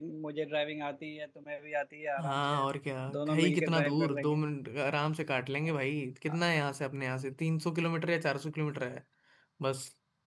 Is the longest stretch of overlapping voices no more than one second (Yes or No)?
No